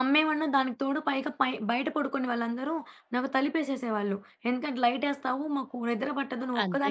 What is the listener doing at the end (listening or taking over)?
taking over